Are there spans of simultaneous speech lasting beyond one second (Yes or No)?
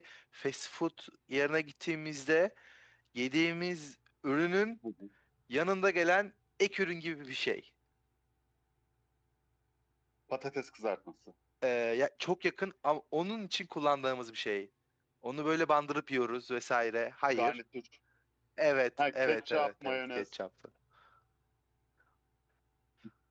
Yes